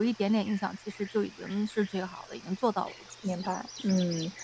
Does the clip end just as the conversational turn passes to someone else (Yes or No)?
Yes